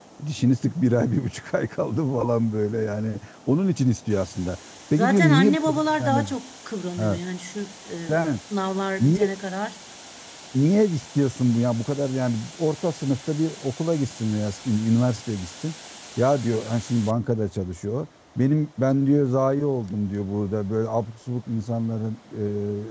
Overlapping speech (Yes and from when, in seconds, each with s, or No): Yes, from 5.0 s